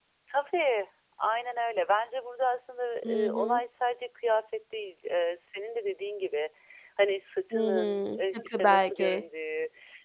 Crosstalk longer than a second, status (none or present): present